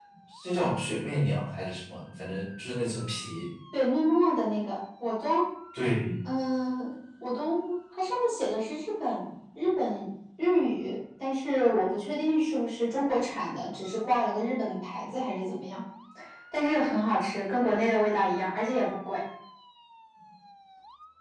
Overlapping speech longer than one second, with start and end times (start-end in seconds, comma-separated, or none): none